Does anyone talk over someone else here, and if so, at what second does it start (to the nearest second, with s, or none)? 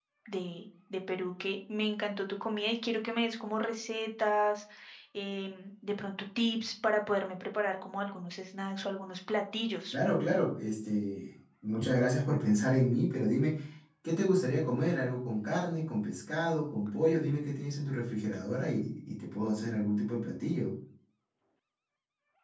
none